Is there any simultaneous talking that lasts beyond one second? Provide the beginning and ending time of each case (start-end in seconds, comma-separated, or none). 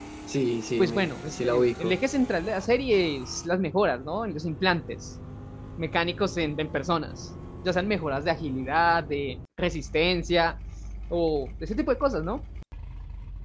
0.8-2.0